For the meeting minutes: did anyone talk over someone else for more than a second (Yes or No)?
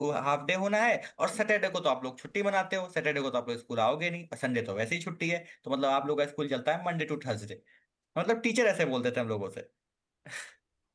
No